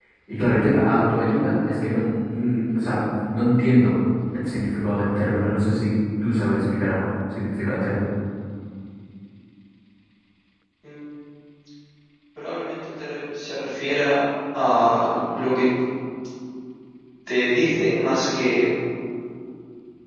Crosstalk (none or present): none